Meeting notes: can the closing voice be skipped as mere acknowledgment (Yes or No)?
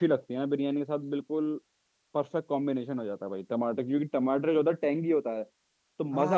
No